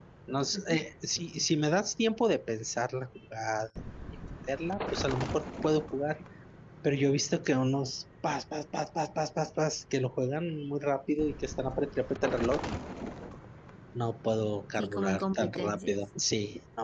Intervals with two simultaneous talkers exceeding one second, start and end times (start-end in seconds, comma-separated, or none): 14.8-16.0